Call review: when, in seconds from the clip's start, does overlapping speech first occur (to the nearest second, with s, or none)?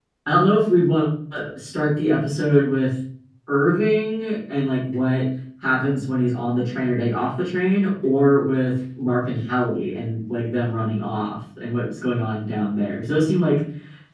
none